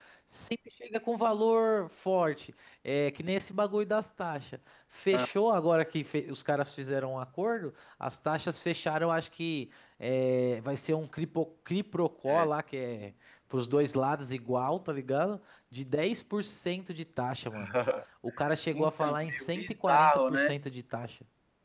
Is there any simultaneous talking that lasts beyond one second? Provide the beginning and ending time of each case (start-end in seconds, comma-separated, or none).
18.7-20.5